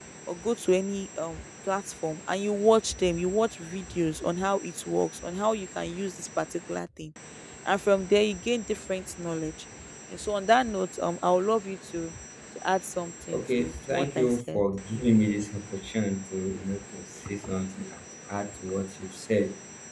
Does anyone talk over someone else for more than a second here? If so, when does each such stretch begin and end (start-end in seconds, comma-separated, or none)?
13.3-14.6